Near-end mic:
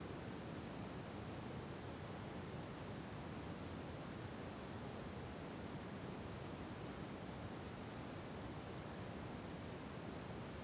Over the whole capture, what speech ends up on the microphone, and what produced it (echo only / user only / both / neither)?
neither